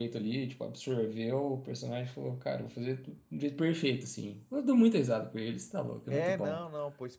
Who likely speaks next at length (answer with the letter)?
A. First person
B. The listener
B